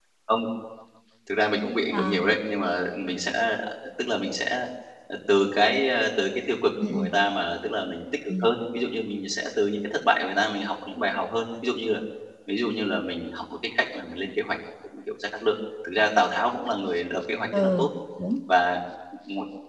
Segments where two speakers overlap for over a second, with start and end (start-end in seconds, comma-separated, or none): none